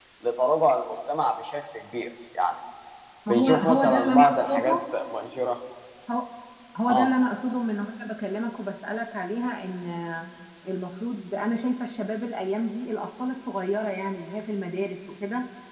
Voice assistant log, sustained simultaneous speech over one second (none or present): present